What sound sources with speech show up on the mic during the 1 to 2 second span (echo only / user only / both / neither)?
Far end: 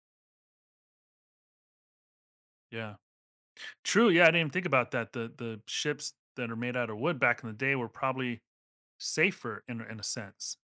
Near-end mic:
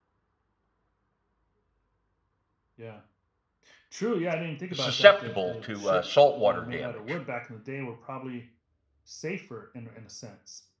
neither